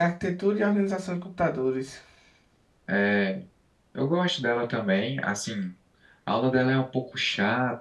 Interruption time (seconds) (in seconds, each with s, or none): none